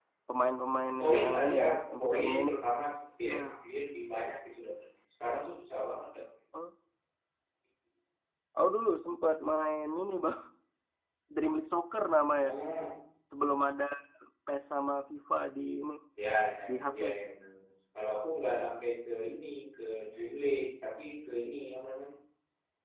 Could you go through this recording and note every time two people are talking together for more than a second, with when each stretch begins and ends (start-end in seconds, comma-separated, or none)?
1.0-2.6